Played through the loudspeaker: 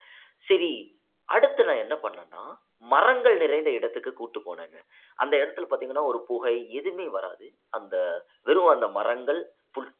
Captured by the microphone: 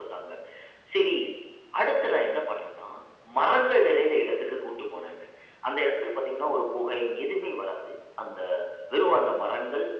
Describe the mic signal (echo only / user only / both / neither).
echo only